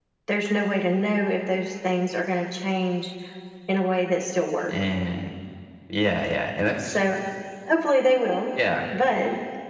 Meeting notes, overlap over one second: none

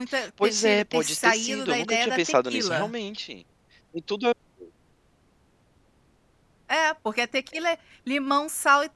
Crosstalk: present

